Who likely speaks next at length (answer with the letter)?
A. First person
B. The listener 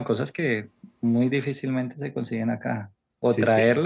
A